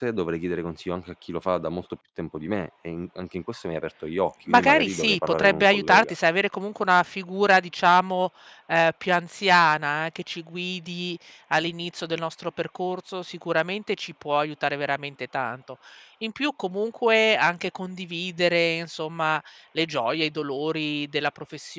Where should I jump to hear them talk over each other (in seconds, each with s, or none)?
4.5 s